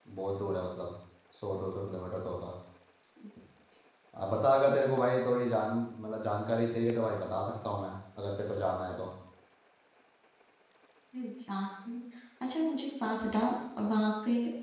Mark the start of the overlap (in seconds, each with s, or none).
none